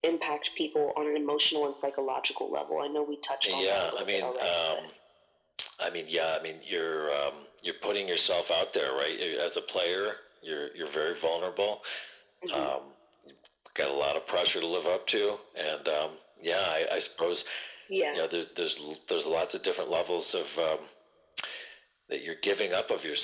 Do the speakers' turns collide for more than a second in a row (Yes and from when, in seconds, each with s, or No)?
Yes, from 3.4 s